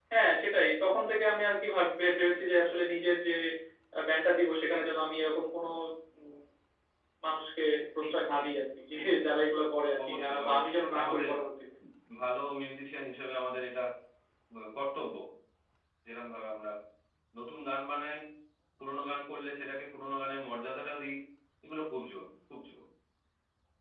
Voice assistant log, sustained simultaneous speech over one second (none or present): present